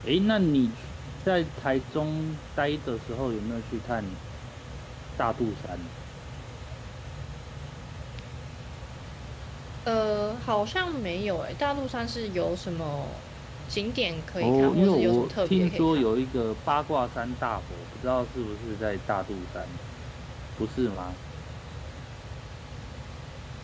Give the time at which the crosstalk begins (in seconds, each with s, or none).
14.4 s